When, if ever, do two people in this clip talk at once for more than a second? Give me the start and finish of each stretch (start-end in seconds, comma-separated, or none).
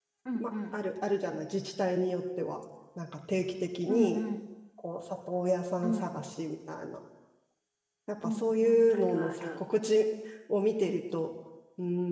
8.2-9.6